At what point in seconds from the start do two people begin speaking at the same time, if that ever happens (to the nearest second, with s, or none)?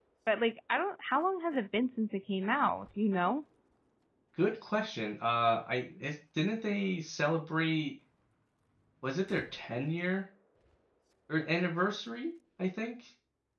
none